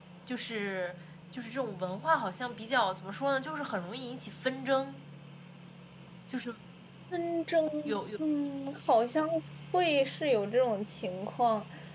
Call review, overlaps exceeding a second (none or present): none